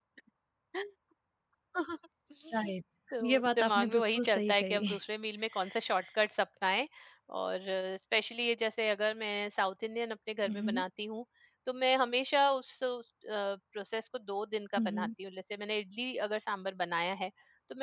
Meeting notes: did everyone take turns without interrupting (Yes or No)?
No